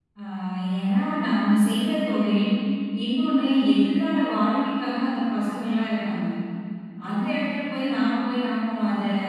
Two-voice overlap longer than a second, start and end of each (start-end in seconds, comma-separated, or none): none